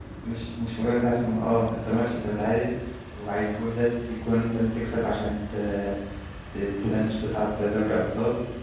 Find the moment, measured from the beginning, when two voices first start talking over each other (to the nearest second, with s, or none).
none